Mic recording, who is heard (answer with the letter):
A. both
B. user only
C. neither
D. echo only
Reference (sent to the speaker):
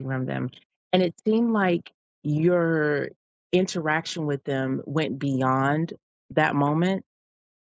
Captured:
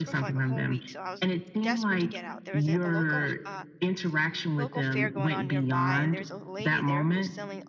A